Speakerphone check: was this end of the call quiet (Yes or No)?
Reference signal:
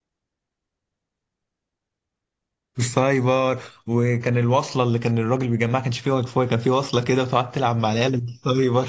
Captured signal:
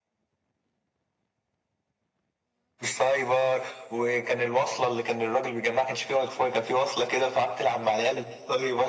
Yes